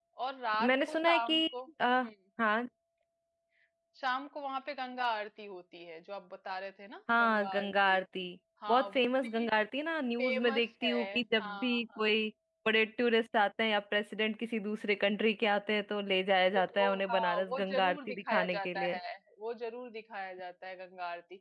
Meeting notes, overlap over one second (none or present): present